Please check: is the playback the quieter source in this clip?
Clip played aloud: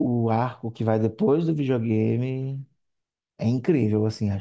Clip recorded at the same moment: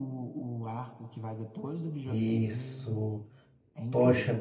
Yes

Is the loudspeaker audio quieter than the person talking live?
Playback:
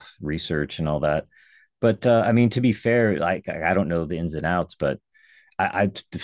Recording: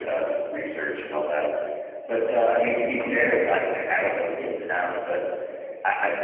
No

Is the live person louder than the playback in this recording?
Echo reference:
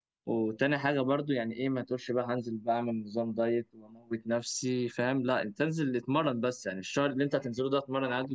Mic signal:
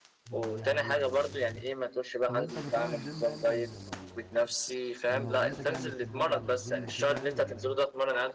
No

